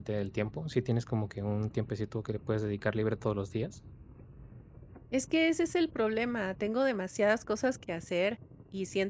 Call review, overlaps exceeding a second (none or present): none